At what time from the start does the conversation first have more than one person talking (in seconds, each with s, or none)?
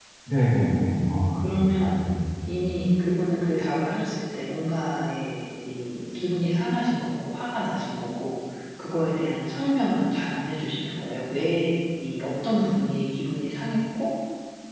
0.6 s